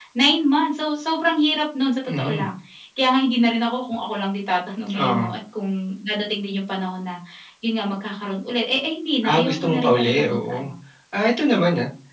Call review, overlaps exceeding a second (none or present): present